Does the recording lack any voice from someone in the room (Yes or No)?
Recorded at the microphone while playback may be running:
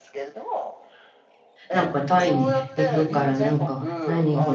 No